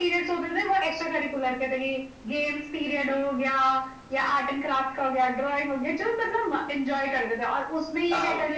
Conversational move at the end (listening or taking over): listening